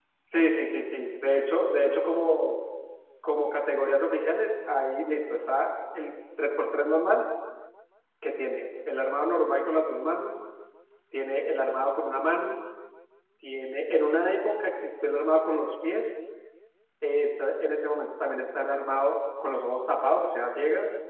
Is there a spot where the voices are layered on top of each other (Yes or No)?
No